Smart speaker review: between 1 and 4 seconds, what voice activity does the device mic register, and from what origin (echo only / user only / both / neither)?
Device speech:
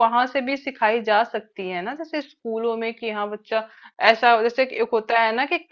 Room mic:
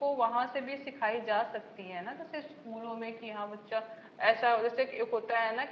echo only